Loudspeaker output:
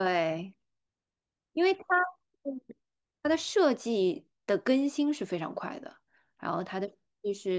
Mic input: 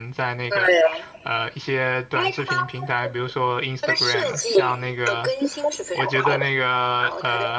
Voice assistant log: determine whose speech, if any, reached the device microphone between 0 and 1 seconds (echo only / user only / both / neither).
both